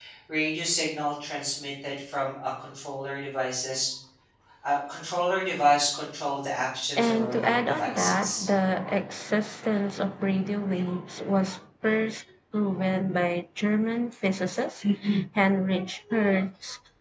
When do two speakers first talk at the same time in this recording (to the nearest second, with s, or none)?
7 s